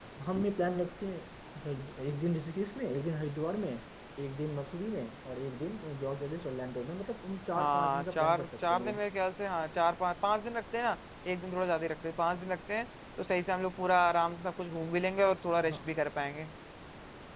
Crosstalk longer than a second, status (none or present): present